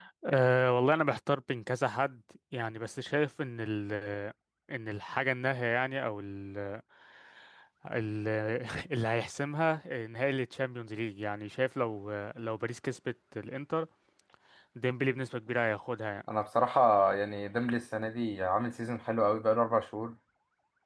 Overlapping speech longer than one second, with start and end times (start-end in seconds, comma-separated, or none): none